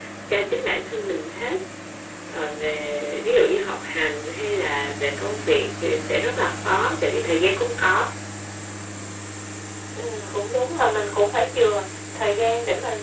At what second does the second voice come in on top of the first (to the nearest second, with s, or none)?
none